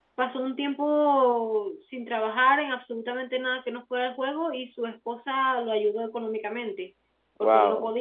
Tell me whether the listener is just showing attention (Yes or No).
Yes